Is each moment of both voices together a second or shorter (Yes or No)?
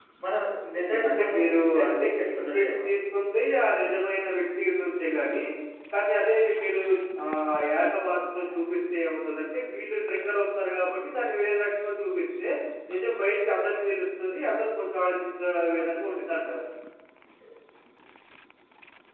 No